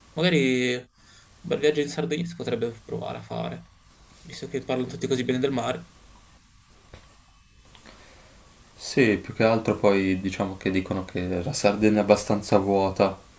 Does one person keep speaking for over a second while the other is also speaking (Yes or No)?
No